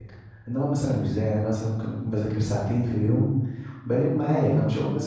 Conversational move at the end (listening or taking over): listening